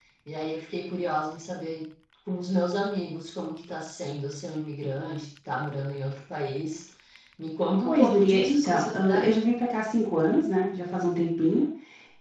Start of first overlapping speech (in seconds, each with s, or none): 7.8 s